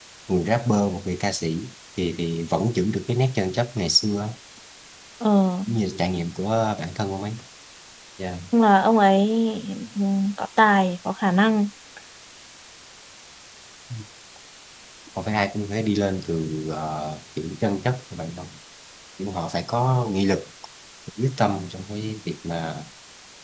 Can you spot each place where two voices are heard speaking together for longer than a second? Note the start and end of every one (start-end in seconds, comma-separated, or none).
none